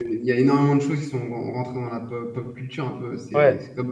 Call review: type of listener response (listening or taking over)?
taking over